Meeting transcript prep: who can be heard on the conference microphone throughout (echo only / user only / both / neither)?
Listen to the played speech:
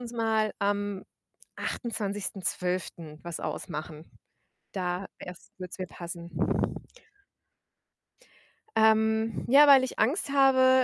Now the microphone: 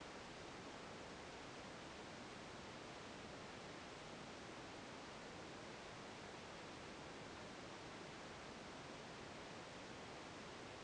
neither